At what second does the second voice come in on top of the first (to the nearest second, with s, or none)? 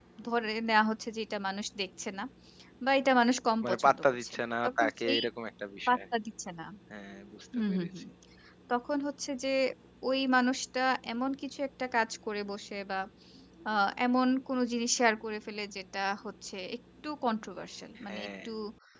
4 s